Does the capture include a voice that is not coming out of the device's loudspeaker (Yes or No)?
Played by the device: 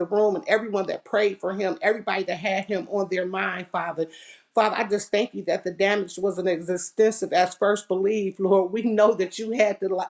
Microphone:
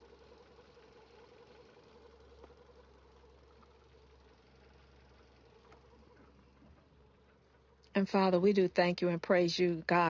Yes